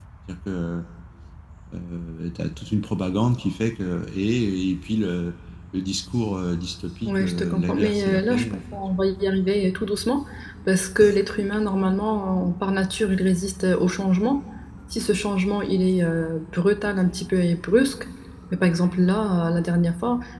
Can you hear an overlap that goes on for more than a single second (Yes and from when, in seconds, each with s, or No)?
Yes, from 7.0 s